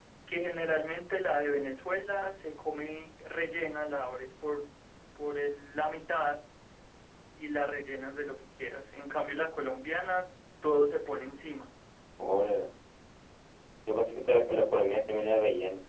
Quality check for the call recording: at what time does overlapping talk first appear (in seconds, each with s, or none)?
none